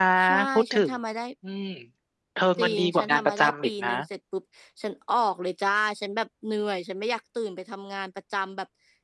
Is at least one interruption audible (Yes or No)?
Yes